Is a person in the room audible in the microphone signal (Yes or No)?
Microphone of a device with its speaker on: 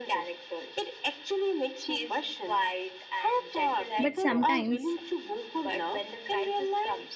Yes